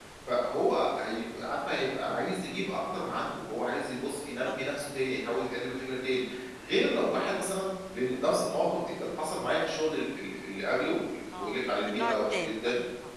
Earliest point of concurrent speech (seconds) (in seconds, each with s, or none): 11.3 s